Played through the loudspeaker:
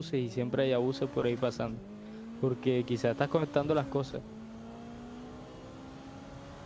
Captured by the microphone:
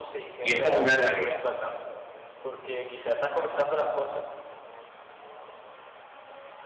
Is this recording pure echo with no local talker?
No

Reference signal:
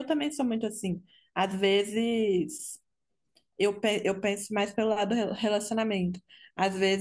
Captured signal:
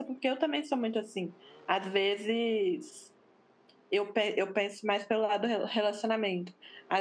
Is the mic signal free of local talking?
Yes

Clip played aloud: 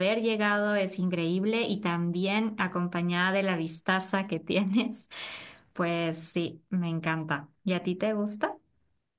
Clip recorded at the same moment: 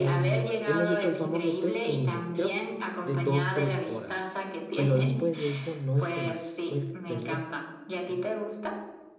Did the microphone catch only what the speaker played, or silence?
No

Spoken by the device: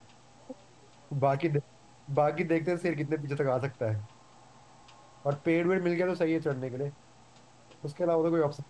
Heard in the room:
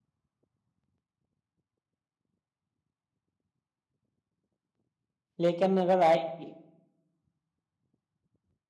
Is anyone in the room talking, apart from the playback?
Yes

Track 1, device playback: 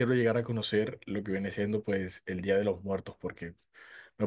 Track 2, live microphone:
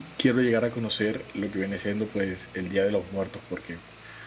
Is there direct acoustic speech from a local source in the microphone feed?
No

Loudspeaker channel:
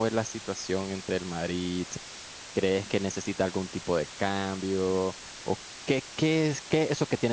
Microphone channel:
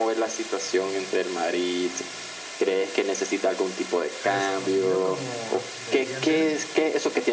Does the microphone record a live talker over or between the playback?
Yes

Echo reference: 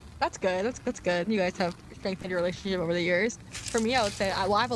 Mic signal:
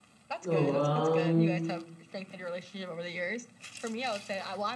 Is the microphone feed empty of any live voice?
No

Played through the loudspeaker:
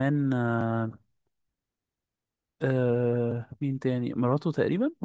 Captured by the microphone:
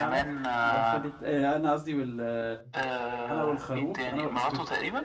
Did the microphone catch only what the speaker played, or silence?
No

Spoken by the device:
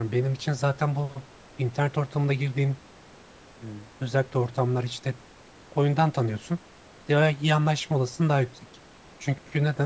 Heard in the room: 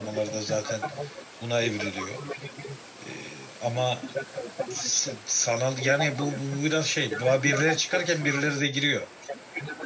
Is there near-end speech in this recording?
Yes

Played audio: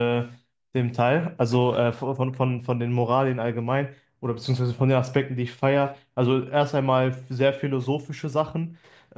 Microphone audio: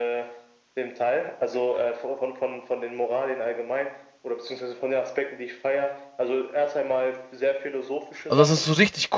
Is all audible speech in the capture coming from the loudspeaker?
No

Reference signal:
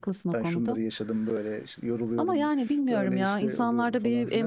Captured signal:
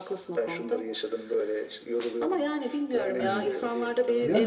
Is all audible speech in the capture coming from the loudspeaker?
No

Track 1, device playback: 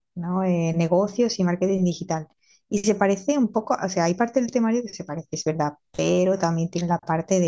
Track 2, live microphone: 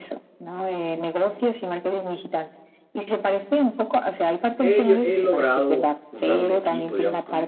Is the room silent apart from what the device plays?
No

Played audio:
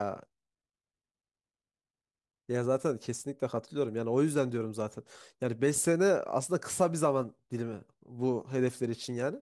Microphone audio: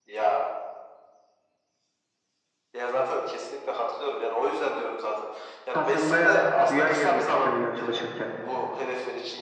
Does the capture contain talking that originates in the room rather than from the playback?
Yes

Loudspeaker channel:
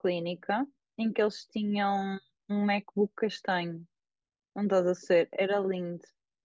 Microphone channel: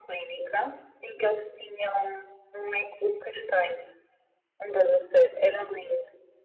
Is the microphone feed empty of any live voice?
Yes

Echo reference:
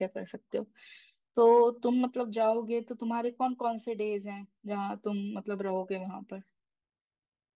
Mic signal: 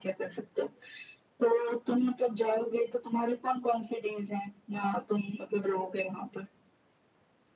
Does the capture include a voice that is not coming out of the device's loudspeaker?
No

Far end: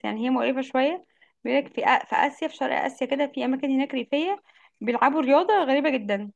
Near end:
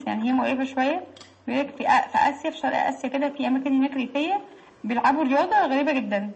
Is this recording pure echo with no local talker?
Yes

